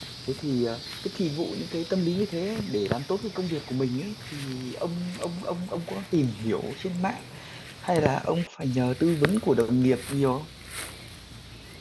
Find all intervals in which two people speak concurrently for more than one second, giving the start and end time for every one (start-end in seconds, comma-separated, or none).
none